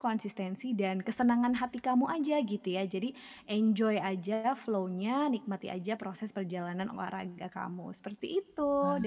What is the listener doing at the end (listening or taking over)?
listening